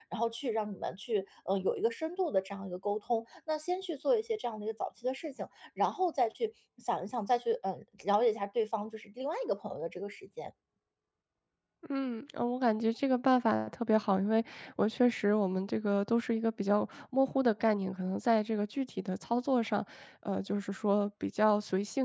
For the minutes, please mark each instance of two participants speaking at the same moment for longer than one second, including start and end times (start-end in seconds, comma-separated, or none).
none